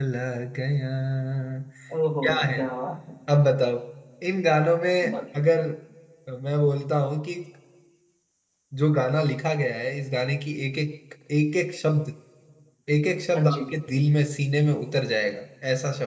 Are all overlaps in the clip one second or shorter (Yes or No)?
Yes